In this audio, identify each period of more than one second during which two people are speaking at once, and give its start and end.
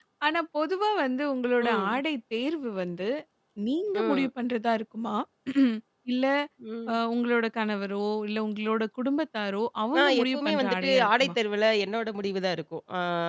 10.0-11.3

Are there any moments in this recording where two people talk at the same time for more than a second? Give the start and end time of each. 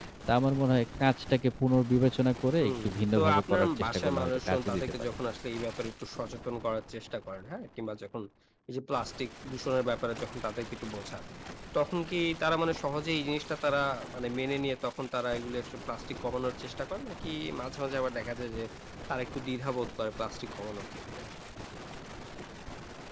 2.6-5.1

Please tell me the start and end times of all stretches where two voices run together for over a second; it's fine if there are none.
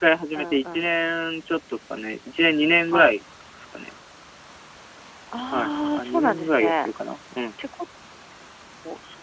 5.5-6.9

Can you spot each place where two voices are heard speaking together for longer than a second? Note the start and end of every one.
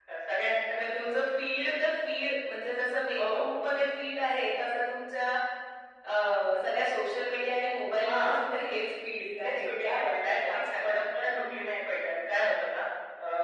9.4-10.9

